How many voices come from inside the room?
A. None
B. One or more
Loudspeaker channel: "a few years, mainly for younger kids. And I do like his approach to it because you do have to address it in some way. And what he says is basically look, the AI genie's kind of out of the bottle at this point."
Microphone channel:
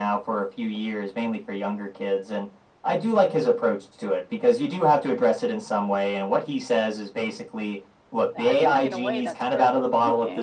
B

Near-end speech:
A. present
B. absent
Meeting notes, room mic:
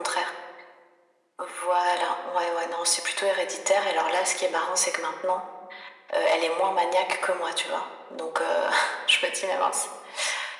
B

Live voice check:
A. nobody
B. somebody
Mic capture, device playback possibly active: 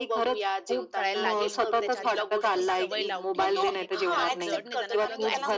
B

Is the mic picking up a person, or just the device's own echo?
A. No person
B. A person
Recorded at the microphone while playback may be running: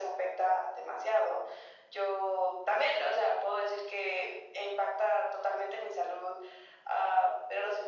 A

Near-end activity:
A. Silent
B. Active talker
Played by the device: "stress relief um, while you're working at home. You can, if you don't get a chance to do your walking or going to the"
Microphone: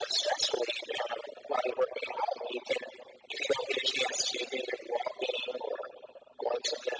A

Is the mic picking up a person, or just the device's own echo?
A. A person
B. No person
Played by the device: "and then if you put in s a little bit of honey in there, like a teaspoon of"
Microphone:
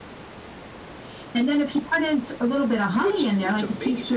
A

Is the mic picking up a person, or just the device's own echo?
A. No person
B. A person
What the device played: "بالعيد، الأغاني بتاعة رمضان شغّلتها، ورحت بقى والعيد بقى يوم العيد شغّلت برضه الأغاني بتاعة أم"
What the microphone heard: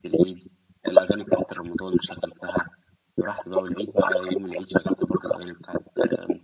A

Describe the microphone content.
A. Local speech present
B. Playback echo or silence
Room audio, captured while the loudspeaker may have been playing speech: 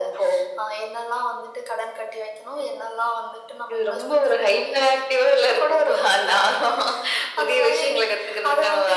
B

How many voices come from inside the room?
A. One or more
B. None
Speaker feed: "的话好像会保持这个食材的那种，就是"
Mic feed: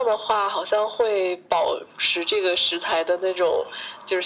B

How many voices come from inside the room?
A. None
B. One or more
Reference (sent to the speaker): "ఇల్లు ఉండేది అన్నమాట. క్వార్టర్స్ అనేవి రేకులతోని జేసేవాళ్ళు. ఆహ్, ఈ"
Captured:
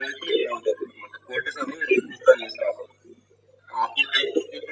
A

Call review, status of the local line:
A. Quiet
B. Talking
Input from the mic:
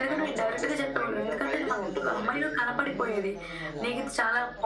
B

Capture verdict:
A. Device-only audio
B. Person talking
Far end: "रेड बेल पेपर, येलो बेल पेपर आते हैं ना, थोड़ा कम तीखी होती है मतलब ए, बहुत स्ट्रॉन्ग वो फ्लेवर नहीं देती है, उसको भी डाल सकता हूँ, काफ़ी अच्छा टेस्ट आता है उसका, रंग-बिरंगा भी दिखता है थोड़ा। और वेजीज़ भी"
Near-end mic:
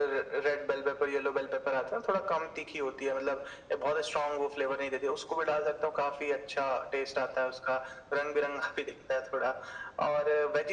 A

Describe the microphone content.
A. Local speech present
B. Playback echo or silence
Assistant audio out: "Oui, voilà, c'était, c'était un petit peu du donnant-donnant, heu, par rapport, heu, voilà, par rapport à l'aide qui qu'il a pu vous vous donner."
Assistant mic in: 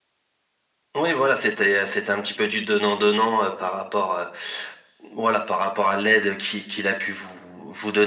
B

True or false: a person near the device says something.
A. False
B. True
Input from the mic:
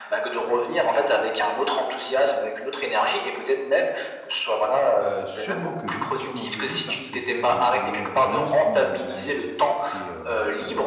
B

